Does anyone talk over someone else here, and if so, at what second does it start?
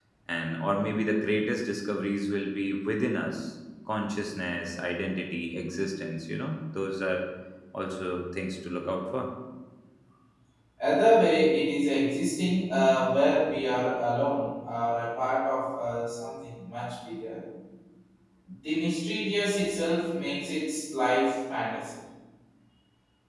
none

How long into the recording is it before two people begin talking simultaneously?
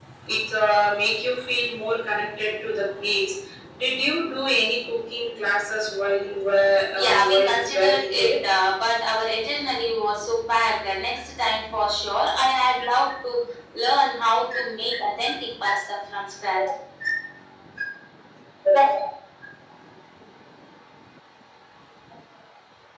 7.0 s

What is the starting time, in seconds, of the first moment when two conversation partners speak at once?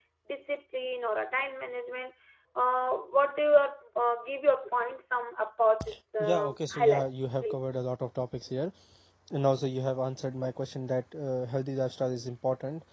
6.2 s

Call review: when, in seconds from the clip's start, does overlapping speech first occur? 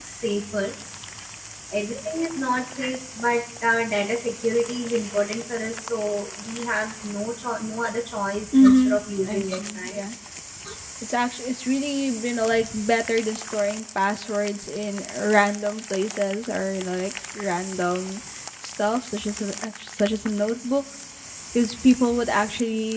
8.4 s

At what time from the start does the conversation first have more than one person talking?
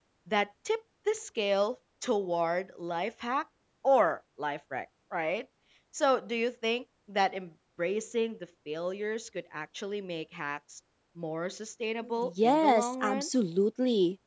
12.0 s

